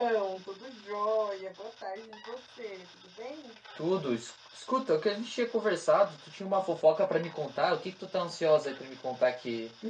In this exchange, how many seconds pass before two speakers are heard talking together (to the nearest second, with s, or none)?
none